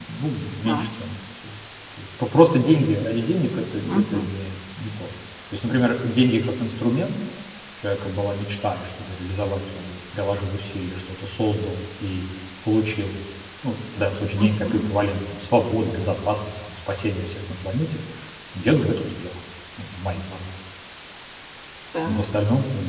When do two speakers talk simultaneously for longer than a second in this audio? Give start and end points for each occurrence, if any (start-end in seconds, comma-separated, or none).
none